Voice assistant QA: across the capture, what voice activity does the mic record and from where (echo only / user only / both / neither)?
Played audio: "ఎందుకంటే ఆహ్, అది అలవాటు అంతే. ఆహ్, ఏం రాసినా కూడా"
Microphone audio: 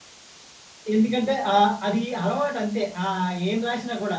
echo only